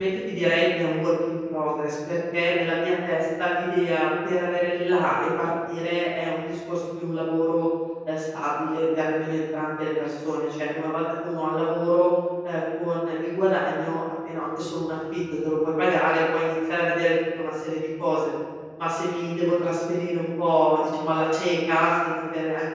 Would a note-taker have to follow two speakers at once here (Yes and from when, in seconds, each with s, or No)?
No